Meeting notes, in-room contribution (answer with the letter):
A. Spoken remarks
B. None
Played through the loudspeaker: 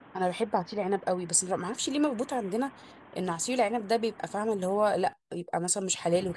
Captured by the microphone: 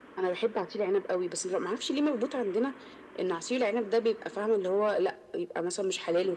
B